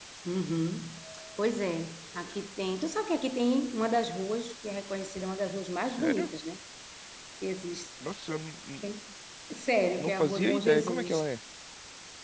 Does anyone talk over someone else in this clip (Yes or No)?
Yes